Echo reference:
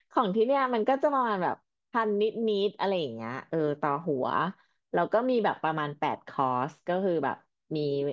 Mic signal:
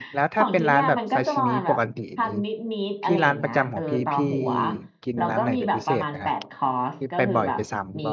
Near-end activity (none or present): present